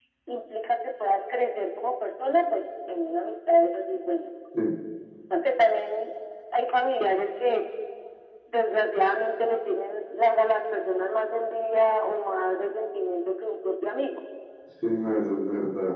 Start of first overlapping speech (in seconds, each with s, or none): none